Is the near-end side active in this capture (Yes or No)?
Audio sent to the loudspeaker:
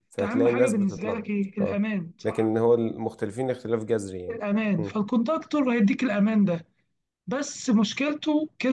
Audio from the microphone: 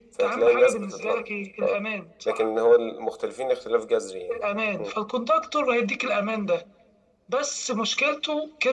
No